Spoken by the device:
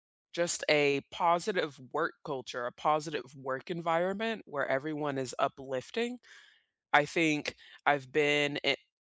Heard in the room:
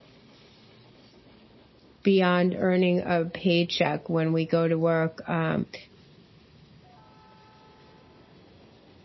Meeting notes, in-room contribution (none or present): present